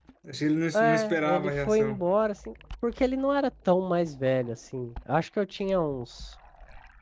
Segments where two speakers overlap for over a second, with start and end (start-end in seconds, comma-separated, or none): 0.7-2.1